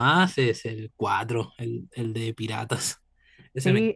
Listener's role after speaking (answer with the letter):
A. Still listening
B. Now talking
B